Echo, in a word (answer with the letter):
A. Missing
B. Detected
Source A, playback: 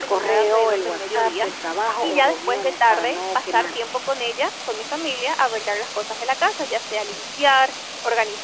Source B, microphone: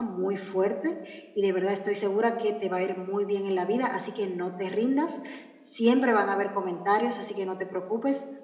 A